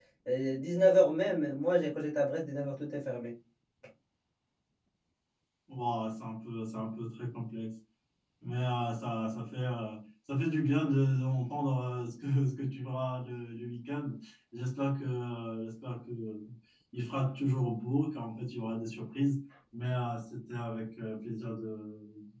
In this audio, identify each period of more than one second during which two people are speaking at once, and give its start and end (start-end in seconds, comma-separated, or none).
none